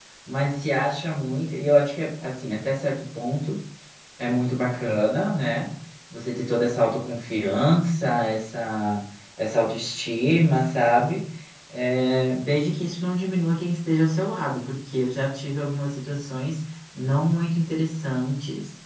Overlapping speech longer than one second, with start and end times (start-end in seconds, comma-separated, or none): none